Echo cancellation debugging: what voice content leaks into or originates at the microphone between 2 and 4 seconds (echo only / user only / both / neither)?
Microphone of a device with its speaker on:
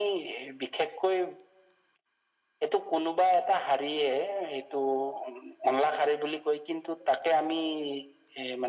echo only